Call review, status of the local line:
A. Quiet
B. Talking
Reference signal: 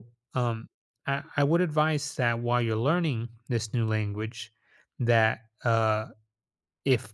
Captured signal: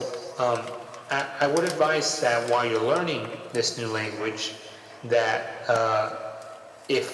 A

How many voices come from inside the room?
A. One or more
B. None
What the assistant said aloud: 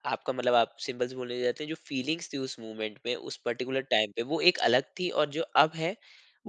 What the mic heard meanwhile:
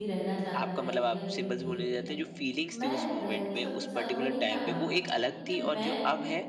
A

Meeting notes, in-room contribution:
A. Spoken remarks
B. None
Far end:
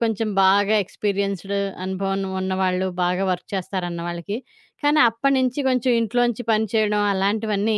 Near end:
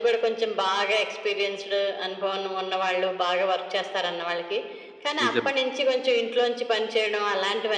A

